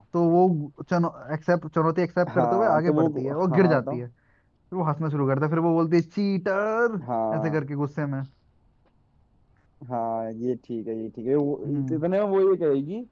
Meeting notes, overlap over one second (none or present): present